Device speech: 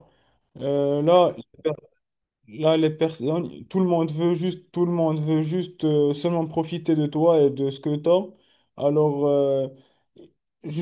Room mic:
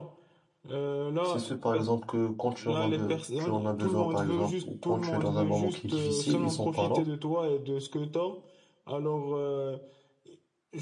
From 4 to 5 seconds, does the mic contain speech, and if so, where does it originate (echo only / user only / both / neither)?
both